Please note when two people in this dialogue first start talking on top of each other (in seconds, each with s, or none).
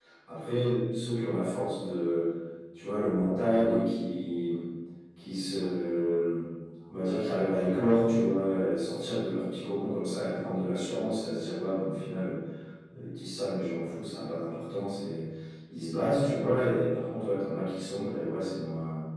none